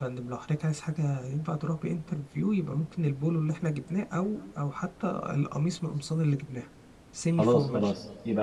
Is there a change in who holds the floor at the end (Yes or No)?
Yes